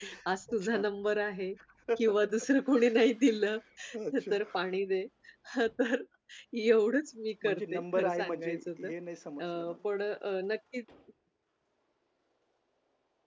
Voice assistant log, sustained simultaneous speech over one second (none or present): present